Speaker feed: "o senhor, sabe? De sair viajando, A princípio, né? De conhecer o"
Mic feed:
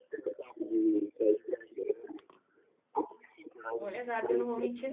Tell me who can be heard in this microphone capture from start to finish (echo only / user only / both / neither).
both